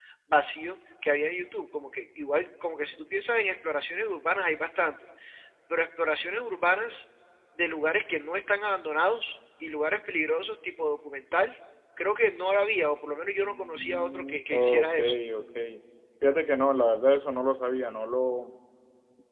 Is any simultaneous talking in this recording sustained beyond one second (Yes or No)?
Yes